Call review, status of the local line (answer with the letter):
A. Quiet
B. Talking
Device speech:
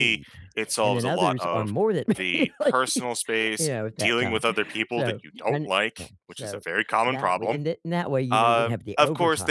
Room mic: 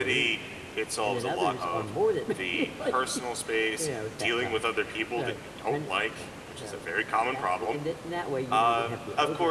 A